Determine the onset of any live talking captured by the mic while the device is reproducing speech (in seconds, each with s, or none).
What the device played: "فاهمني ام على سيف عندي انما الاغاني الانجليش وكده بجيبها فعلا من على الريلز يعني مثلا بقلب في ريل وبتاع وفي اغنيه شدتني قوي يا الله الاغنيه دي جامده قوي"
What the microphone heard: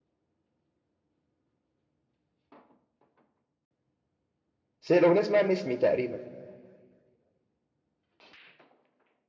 4.8 s